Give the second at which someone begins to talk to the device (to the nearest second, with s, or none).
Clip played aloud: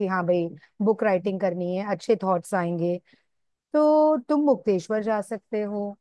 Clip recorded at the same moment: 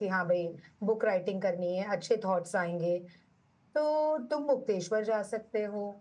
none